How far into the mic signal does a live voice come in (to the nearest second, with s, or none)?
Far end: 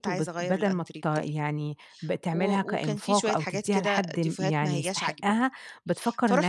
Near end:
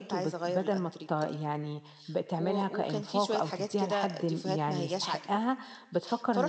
none